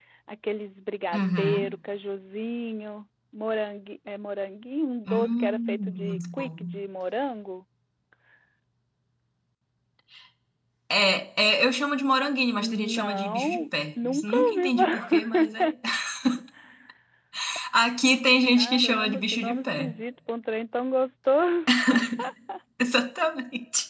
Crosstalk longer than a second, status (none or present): present